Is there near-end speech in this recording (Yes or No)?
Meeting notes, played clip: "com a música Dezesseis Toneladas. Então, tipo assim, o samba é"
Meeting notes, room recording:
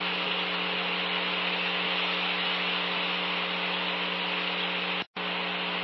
No